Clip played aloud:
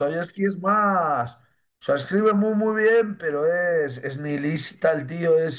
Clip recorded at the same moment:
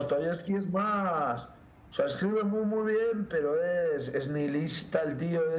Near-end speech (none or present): none